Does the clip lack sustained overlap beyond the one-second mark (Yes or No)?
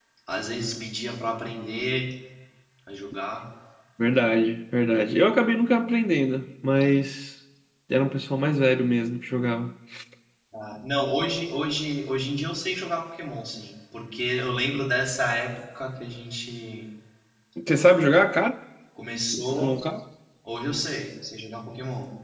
Yes